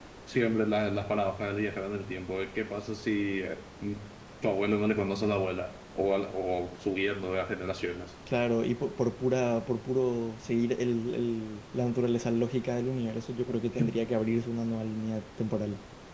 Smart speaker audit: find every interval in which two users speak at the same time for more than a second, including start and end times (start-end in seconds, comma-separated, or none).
none